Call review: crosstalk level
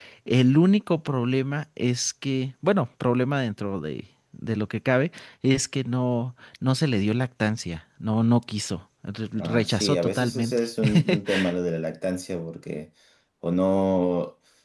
present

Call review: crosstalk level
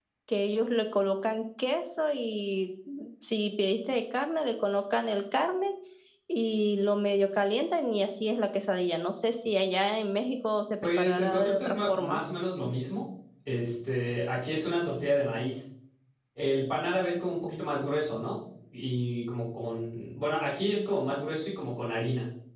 present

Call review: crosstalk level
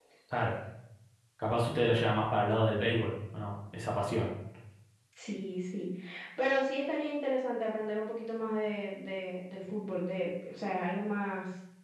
none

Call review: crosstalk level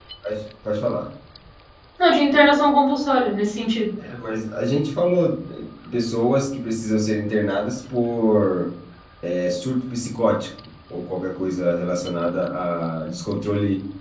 none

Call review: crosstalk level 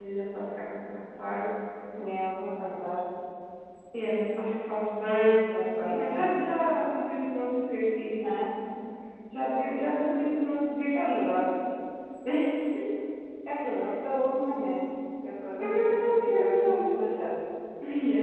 present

